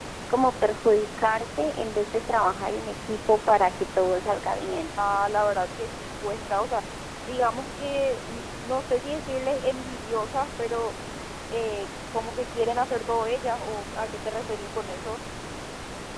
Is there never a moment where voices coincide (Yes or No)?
Yes